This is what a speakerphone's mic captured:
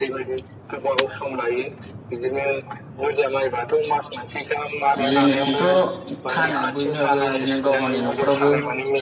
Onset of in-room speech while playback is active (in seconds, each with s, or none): 5.0 s